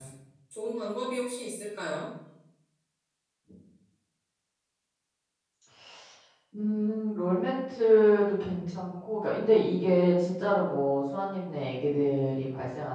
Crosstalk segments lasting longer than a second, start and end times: none

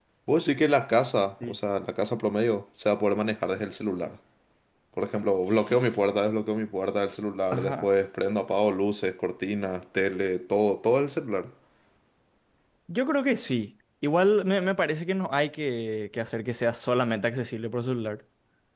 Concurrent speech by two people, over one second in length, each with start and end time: none

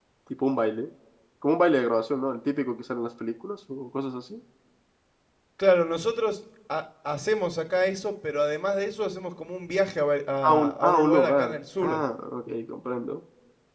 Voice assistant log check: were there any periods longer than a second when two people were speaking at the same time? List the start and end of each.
10.5-12.0

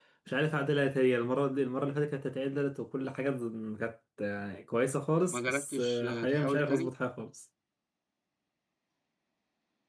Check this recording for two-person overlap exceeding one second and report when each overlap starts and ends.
5.3-6.9

